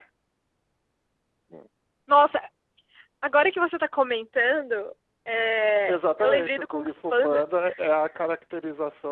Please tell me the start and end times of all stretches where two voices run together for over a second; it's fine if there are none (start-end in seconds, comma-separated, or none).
5.9-7.4